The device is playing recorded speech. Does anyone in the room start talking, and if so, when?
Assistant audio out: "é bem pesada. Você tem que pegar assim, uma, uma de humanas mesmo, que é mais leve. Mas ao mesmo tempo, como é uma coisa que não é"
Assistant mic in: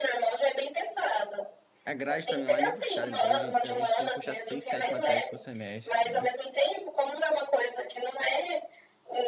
1.8 s

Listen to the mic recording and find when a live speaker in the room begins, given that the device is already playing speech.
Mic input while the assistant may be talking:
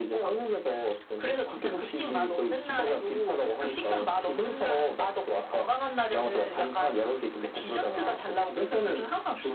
none

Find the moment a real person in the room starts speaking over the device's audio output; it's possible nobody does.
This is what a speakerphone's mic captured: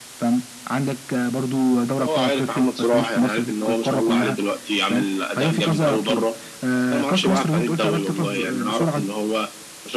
none

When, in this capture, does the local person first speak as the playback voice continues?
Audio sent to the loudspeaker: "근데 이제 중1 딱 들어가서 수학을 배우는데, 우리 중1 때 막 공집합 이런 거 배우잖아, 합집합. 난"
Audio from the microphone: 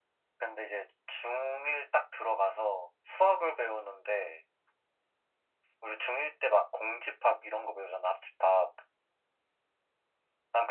none

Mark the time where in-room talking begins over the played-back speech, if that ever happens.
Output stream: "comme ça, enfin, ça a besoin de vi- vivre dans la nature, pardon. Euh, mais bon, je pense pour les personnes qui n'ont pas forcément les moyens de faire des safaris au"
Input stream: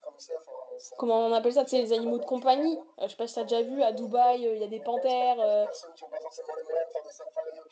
1.0 s

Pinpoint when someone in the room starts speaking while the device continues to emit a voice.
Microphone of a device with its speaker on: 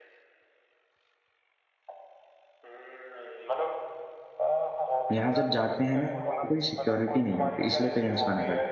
5.2 s

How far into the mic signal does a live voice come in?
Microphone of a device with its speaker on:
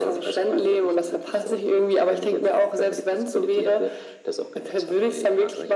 none

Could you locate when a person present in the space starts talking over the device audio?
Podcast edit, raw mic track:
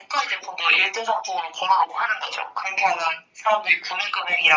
none

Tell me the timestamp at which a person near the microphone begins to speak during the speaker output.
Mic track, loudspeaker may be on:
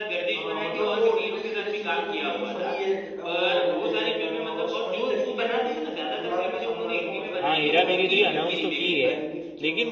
7.4 s

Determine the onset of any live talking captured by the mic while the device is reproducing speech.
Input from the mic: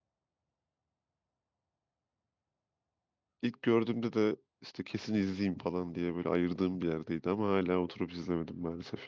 3.4 s

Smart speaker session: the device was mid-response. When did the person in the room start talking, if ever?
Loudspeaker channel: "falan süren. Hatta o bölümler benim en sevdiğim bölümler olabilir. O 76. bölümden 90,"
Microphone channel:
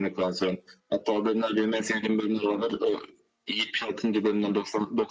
none

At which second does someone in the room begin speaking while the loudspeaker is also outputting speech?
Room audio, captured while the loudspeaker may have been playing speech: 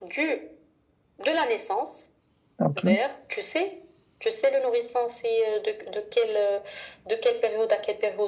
2.6 s

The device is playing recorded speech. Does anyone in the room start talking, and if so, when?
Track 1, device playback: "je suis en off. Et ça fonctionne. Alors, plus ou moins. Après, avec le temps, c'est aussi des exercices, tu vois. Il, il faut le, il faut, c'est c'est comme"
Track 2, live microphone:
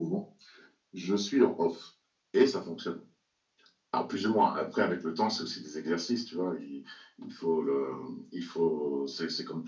none

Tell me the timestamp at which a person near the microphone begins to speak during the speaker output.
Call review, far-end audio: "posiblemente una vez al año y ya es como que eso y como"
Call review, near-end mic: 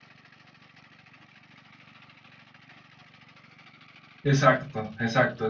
4.2 s

